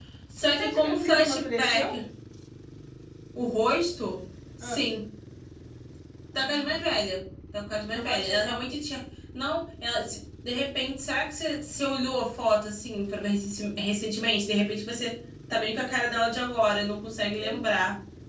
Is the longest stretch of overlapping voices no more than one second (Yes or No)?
No